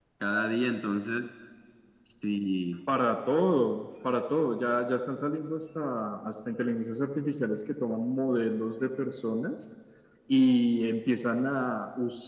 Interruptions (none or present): none